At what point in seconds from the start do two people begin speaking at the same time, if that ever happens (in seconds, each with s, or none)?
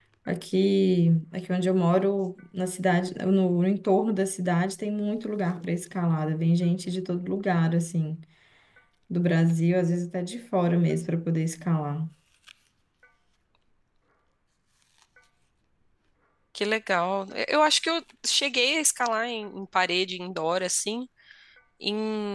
none